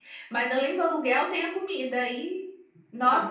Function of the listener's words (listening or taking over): listening